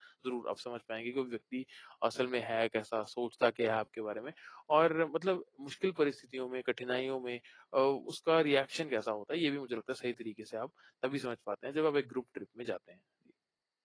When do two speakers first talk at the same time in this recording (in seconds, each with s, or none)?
none